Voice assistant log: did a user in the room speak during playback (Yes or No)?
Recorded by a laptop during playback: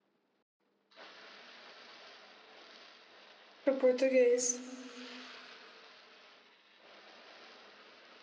Yes